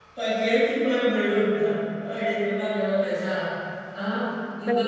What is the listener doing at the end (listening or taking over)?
taking over